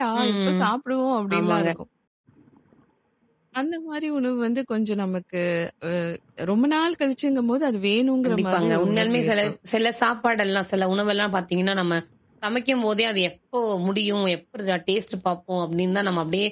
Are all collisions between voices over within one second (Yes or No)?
No